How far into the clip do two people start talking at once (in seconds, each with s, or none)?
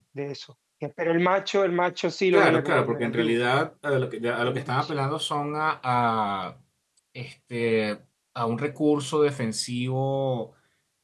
2.3 s